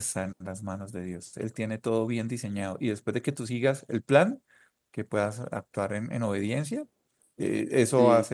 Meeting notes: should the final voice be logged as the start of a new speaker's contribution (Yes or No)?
No